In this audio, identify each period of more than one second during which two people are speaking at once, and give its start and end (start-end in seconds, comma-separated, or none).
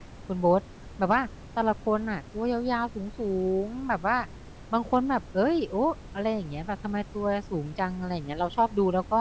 none